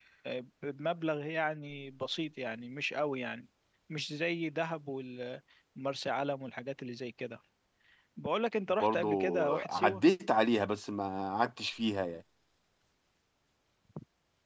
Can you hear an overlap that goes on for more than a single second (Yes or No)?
Yes